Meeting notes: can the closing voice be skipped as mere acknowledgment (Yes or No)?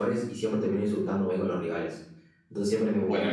Yes